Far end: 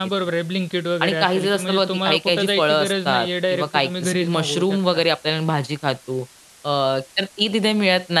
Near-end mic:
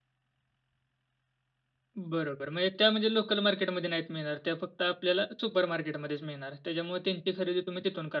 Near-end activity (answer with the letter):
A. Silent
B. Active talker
B